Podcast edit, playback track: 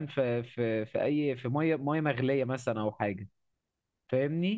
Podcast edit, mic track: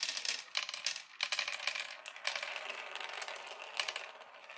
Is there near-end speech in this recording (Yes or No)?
No